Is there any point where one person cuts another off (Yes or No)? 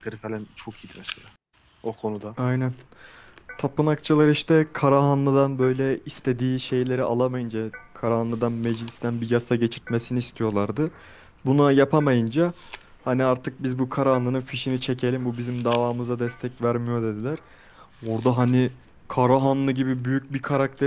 No